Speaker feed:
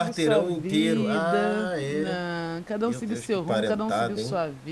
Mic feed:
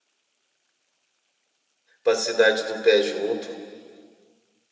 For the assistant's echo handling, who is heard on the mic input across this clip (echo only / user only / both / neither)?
user only